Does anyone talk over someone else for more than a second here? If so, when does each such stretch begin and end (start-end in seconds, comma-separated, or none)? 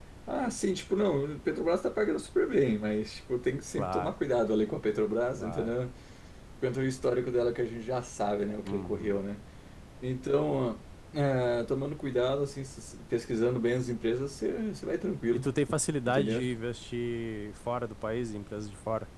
none